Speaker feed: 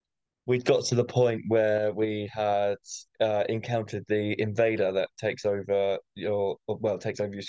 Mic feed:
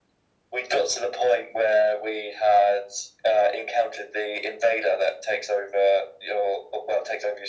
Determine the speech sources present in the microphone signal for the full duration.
echo only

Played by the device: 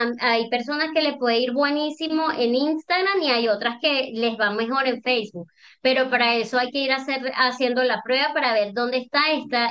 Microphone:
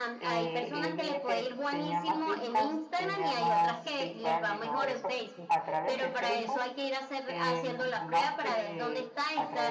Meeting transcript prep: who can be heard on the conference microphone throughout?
both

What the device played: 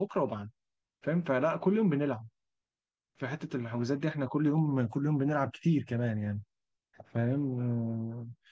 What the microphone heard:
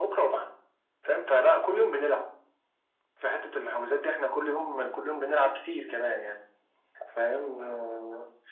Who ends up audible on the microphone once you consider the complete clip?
echo only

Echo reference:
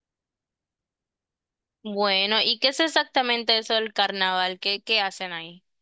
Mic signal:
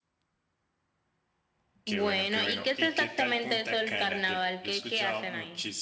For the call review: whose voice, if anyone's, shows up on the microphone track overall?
both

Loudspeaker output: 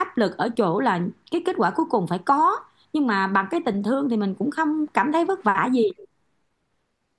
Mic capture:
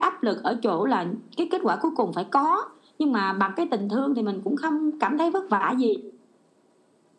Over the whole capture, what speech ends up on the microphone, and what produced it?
echo only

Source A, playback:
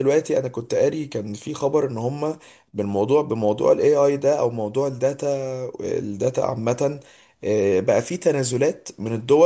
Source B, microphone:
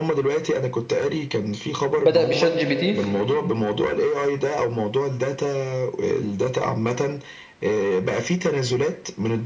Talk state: both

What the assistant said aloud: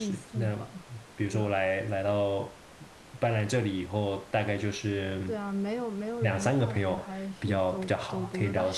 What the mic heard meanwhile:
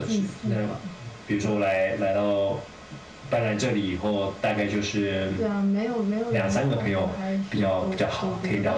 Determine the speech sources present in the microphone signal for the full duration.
echo only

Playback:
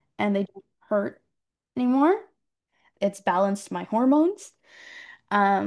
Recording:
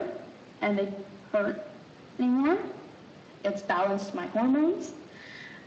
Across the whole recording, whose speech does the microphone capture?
echo only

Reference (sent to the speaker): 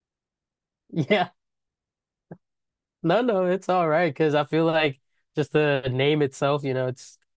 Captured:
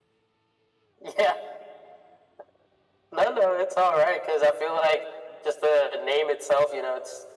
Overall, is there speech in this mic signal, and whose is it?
echo only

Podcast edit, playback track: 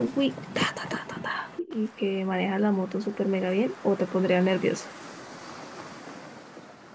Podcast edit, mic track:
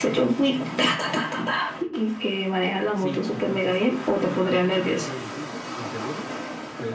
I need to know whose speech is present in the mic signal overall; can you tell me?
both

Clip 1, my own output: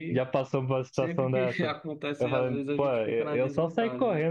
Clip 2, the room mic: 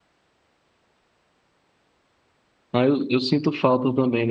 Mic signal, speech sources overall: user only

